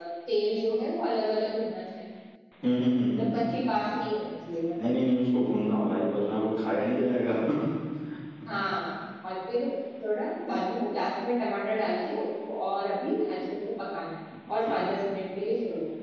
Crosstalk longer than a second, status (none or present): none